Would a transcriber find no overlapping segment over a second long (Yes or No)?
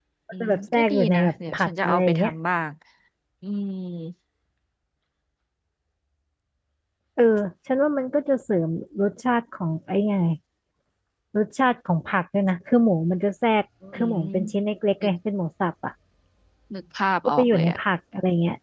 No